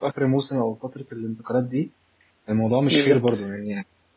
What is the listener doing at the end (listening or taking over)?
listening